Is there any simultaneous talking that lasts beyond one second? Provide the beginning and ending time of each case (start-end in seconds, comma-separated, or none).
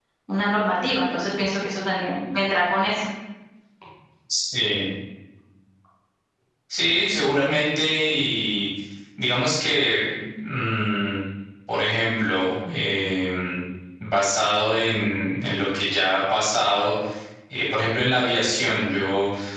none